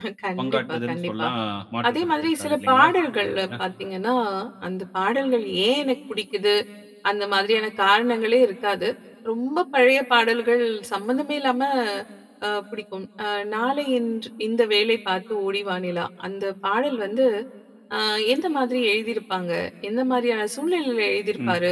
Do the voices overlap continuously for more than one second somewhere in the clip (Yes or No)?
Yes